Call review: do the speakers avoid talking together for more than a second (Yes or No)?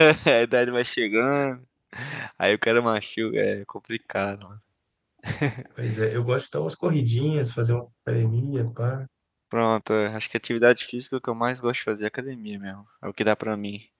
Yes